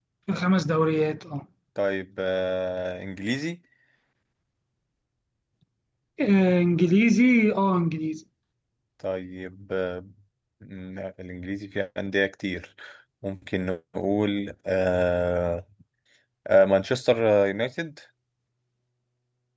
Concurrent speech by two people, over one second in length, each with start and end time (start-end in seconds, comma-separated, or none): none